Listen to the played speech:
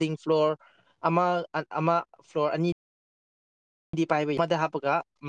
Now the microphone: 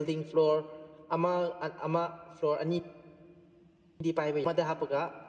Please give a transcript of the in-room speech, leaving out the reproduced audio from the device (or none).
none